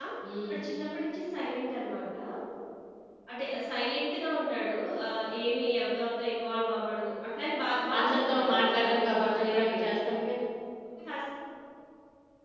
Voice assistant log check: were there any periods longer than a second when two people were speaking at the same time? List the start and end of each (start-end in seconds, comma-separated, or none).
8.0-9.9